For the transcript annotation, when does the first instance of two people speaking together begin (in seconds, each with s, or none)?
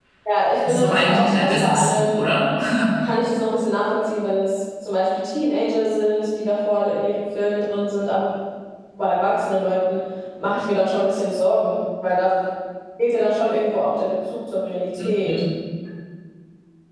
0.7 s